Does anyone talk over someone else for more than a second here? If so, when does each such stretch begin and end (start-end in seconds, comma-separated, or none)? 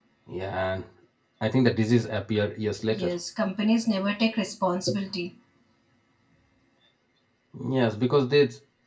none